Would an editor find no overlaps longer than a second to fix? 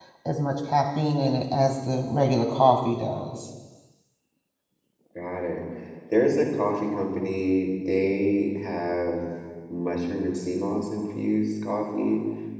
Yes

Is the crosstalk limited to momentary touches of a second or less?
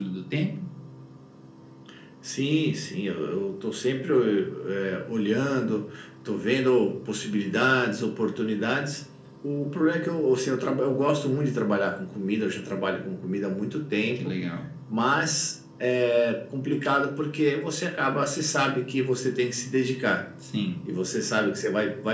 Yes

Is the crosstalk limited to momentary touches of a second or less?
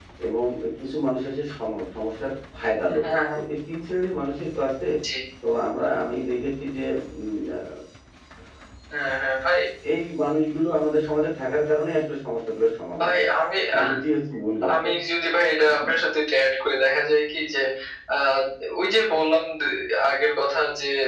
Yes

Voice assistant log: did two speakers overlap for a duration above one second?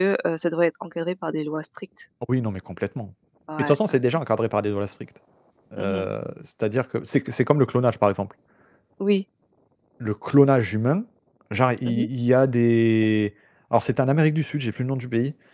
No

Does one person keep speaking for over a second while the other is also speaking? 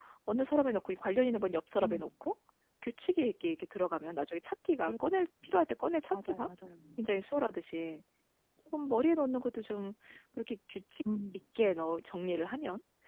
No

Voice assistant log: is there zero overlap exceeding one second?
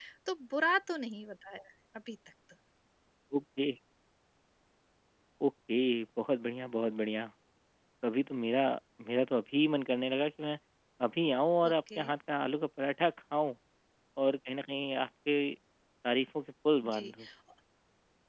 Yes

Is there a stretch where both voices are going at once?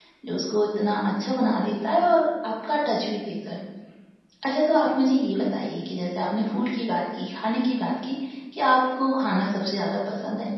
No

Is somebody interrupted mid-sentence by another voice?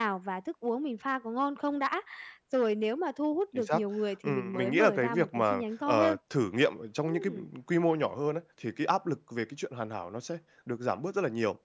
Yes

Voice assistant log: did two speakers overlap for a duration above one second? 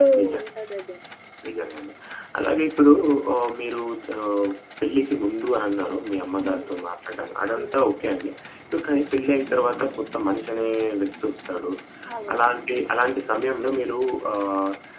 No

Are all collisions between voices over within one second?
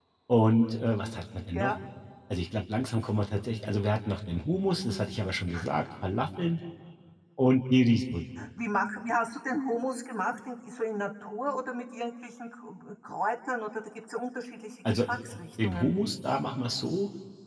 Yes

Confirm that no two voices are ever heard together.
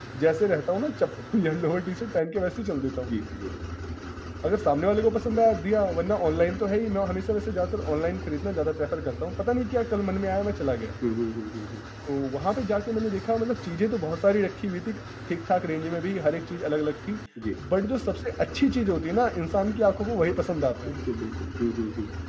Yes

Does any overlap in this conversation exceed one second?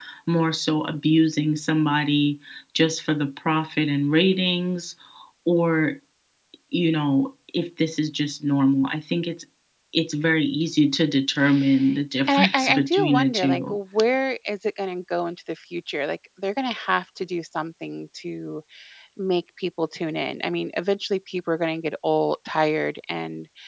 Yes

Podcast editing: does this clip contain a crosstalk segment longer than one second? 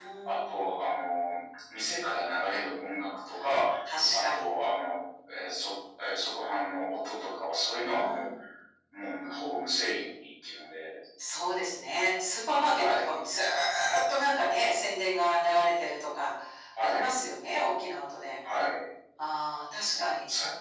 No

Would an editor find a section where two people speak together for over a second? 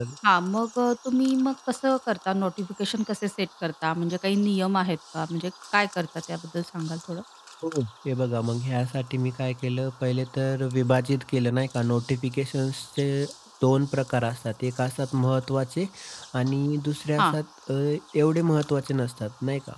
No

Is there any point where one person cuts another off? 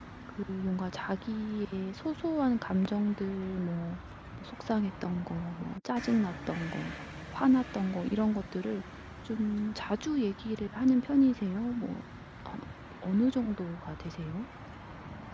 No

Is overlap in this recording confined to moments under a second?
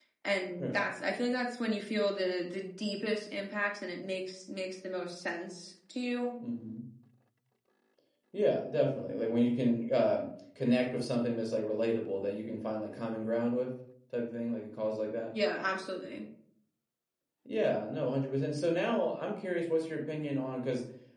Yes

